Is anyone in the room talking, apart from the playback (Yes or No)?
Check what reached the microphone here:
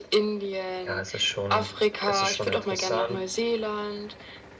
Yes